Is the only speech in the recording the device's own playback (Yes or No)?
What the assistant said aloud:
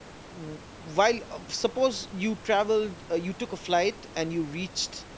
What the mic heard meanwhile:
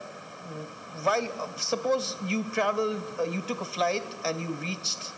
Yes